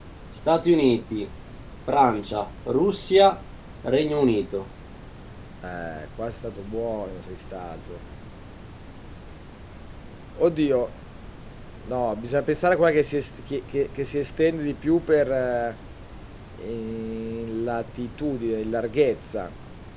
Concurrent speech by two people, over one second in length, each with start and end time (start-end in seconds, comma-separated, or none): none